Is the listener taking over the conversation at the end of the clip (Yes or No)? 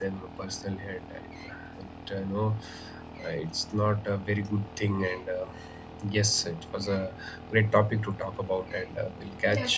Yes